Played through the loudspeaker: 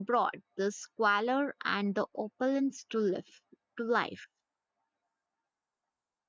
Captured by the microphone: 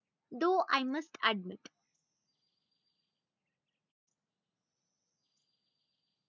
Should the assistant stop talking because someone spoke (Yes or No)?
Yes